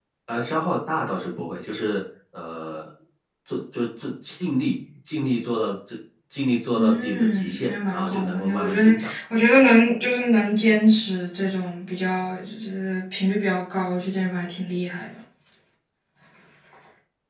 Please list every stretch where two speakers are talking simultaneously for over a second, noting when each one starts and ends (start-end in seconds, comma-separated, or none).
6.7-9.1